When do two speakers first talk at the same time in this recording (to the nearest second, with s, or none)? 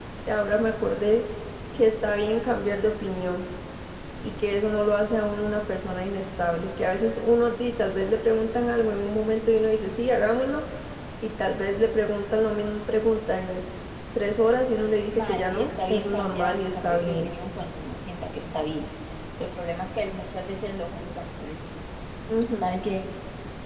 15 s